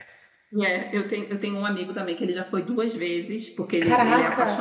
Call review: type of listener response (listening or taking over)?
listening